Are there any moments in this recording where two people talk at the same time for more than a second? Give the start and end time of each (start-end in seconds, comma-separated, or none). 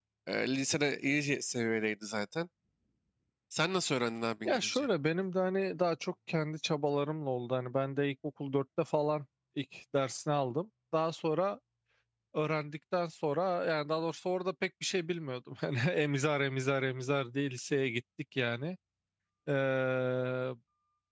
none